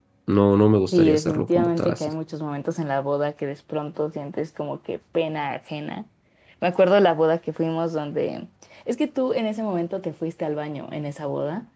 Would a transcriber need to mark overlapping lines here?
Yes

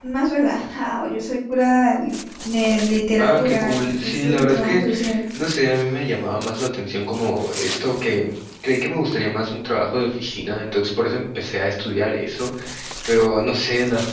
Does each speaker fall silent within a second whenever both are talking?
No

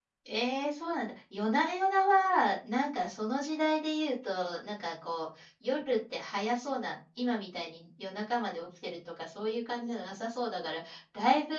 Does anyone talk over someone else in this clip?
No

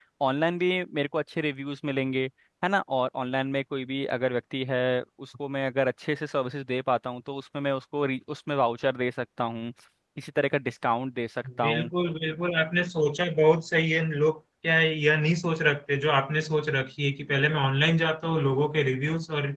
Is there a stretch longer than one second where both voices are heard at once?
No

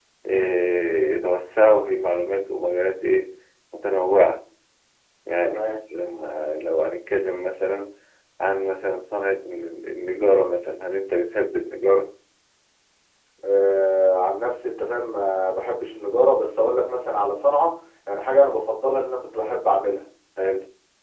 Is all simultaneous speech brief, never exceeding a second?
Yes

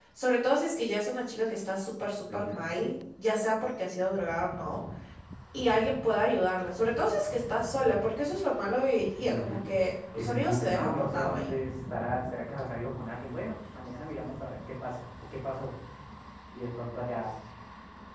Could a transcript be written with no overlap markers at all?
No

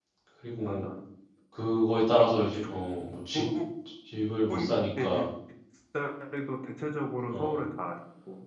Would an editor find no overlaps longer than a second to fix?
Yes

